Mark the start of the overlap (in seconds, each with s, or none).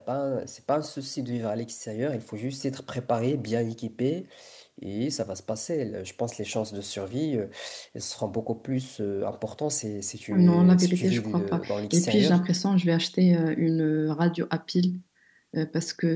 10.3 s